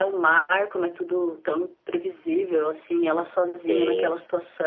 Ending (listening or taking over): listening